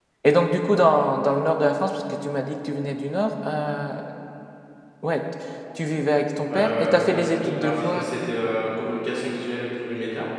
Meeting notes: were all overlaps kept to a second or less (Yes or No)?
No